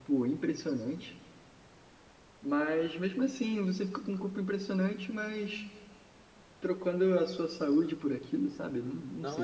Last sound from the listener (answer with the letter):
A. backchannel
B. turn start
B